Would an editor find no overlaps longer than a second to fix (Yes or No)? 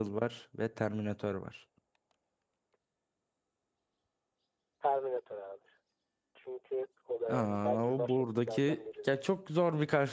No